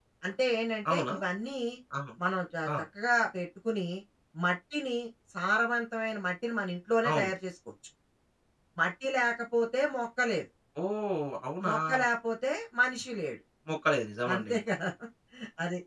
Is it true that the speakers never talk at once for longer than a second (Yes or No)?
Yes